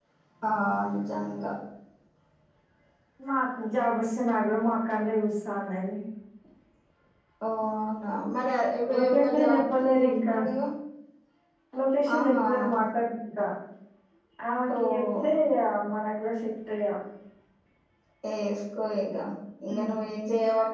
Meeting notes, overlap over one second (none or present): present